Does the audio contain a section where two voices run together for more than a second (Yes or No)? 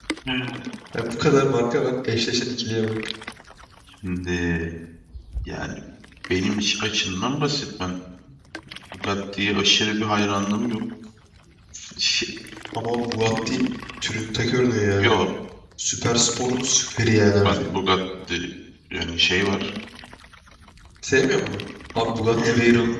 No